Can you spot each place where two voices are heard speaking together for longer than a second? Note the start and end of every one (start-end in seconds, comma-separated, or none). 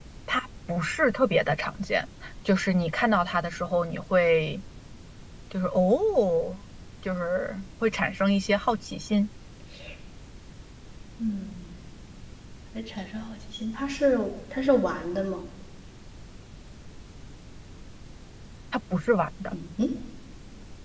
none